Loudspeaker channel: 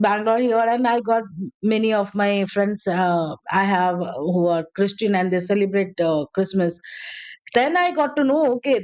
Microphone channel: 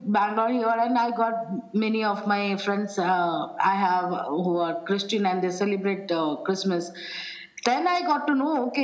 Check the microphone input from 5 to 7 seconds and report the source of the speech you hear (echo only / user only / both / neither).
echo only